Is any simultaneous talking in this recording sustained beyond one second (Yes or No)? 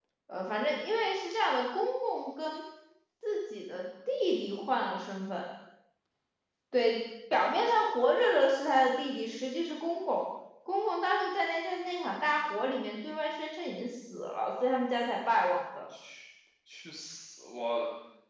No